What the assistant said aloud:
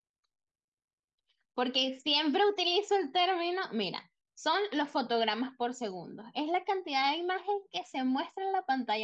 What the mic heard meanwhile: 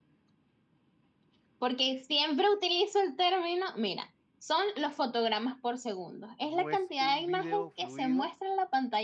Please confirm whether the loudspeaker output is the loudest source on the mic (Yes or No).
Yes